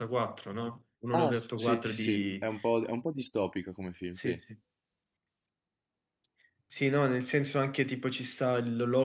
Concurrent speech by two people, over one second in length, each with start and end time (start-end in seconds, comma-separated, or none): 1.1-2.5